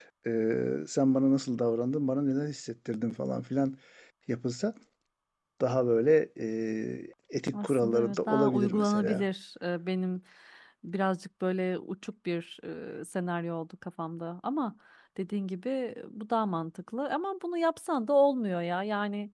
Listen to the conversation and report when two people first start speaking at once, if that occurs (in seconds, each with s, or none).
7.5 s